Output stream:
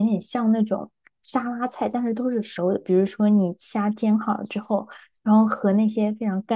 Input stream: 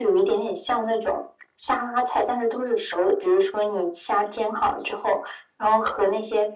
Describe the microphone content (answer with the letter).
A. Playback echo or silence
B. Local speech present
A